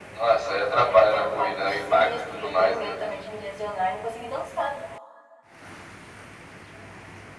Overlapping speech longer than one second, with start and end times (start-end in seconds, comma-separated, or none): 0.7-2.9